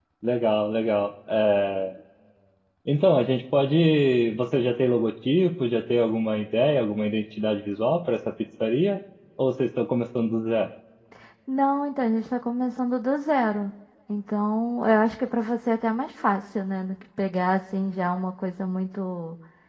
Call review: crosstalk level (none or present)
none